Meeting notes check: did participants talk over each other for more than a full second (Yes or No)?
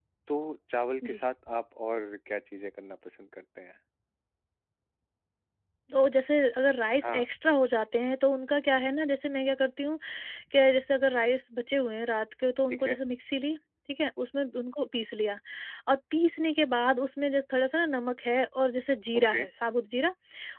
No